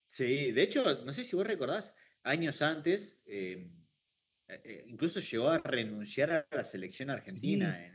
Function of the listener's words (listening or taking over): listening